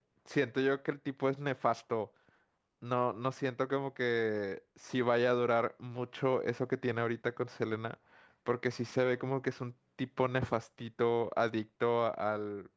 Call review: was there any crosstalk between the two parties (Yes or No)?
No